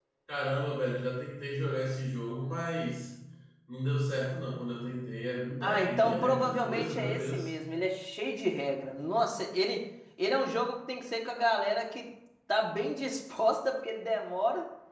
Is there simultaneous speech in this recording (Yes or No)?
Yes